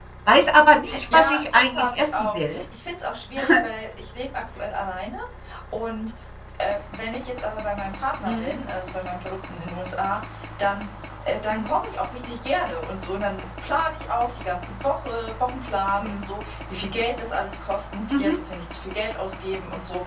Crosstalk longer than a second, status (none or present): present